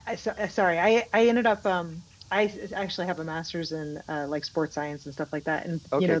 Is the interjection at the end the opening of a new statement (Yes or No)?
No